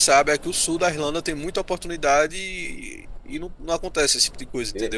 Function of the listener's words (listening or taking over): taking over